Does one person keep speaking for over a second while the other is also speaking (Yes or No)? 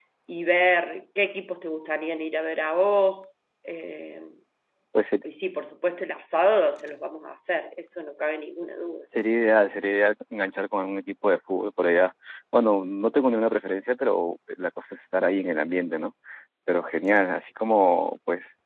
No